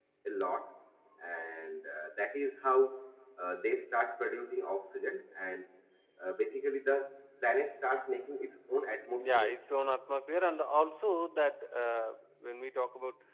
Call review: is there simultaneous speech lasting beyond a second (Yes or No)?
No